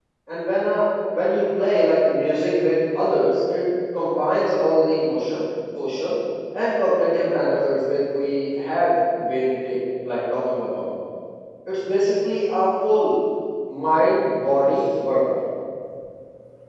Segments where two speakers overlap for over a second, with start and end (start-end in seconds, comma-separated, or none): none